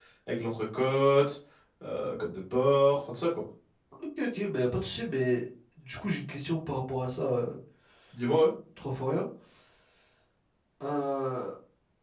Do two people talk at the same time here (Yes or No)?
No